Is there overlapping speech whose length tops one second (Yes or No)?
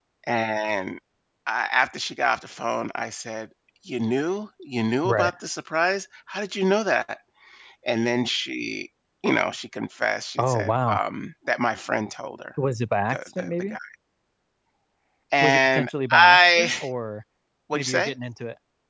Yes